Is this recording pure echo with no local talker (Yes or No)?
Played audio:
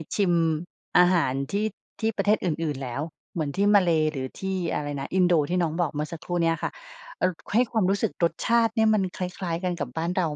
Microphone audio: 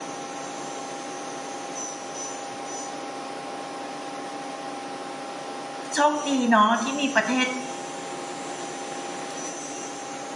No